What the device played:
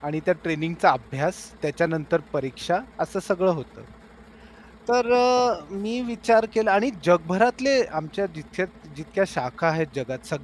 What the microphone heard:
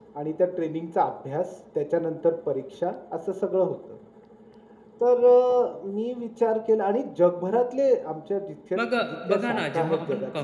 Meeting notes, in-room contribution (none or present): present